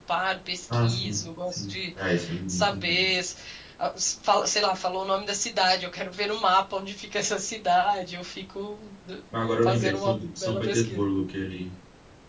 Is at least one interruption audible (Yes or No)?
Yes